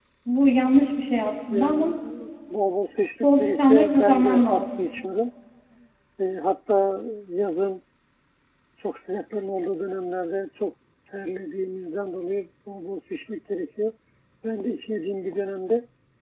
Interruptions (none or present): present